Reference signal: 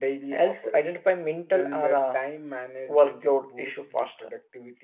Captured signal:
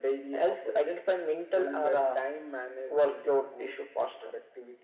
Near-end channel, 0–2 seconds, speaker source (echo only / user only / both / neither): echo only